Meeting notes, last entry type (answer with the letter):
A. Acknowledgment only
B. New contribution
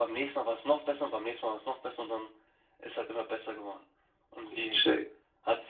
A